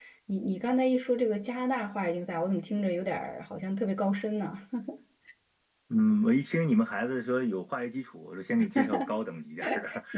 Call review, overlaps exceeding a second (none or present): none